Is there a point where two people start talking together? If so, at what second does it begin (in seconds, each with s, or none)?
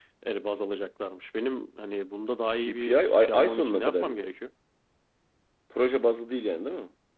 2.6 s